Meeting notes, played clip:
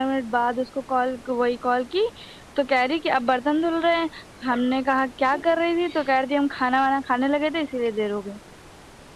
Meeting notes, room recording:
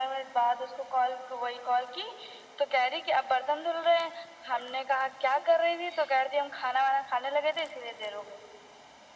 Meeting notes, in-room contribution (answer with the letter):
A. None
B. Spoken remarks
A